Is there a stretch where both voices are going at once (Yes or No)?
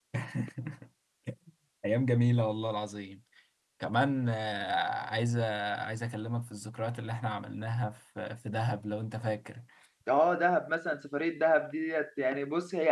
No